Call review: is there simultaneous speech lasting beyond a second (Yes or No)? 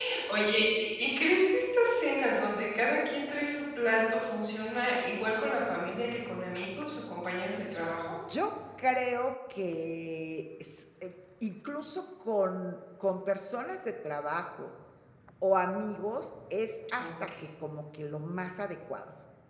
No